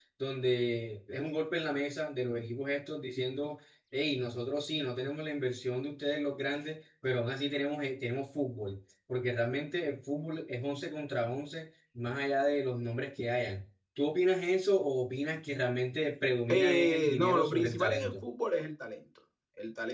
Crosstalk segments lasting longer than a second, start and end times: 16.5-18.2

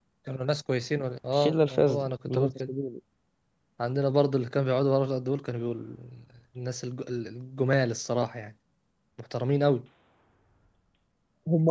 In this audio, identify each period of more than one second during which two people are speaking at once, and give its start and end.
1.3-2.7

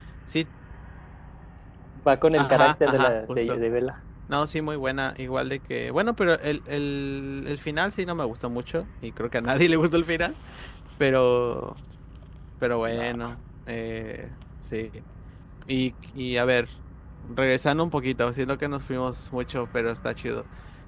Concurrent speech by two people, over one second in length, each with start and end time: 2.4-3.6

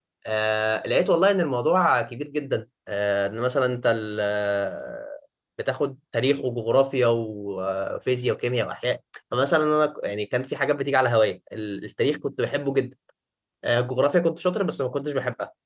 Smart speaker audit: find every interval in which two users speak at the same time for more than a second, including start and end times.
none

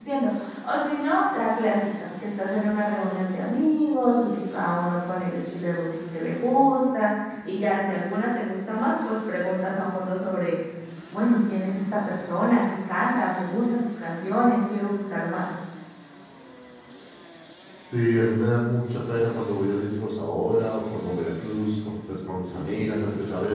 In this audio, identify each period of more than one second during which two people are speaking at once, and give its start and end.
none

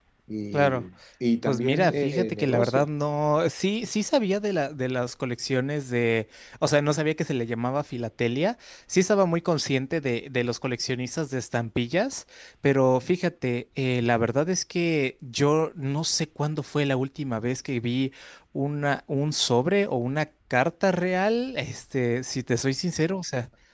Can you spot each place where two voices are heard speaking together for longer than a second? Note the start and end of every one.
1.5-2.9

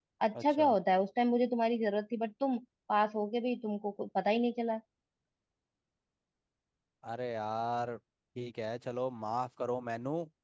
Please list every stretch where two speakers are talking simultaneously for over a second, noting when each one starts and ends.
none

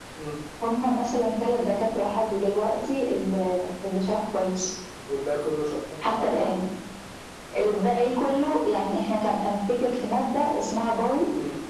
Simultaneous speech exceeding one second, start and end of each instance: none

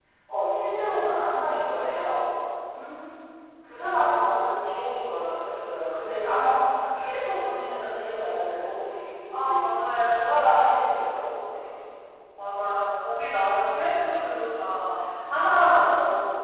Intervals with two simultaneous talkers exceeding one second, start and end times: none

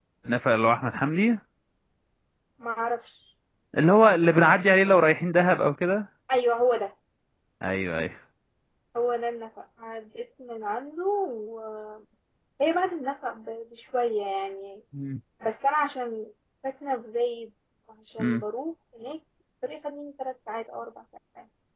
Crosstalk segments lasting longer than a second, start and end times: none

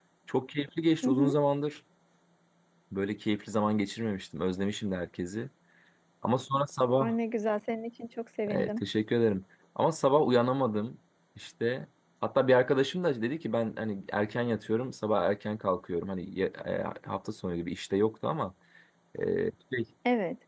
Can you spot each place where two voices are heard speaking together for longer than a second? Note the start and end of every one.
none

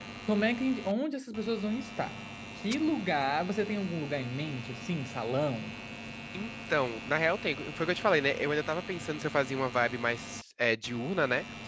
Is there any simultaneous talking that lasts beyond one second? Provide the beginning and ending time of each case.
none

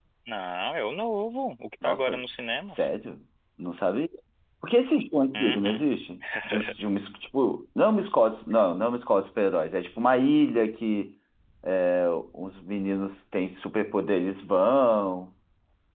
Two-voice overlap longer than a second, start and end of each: none

